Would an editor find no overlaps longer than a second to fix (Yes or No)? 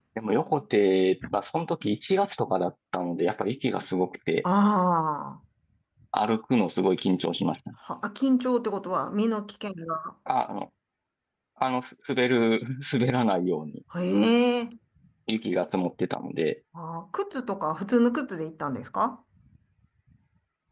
Yes